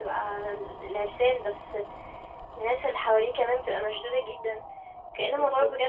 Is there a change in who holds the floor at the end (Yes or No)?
No